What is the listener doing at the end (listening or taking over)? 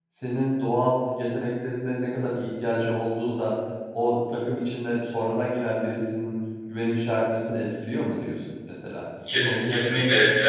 taking over